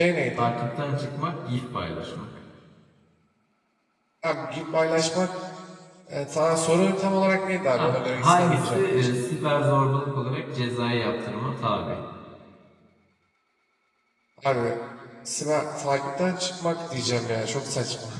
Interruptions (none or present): present